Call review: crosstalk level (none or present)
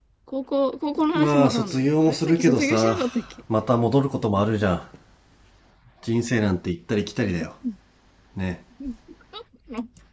present